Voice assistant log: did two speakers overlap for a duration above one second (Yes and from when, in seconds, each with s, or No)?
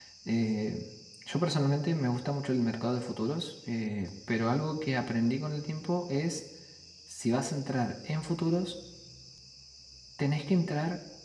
No